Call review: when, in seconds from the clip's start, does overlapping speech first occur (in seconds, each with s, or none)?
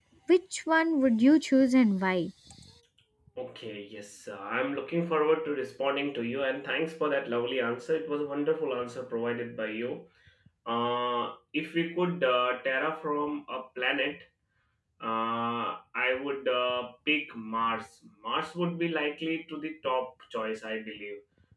none